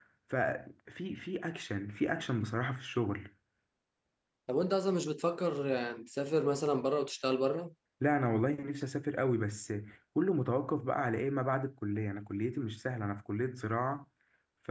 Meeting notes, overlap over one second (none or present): none